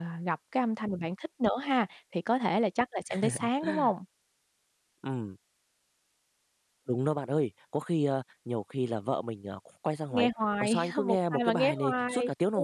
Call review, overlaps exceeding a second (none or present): present